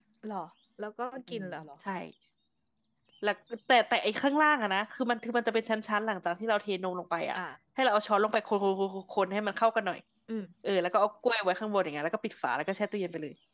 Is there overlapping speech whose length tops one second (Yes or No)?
No